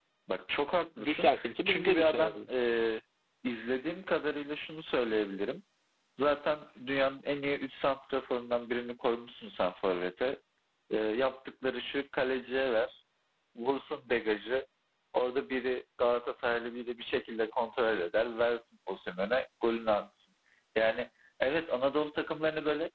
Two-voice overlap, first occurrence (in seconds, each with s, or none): 1.0 s